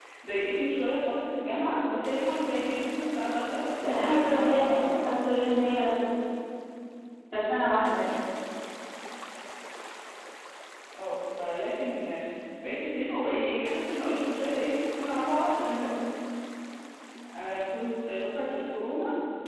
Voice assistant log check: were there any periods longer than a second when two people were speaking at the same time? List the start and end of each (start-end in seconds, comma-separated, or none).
3.8-5.2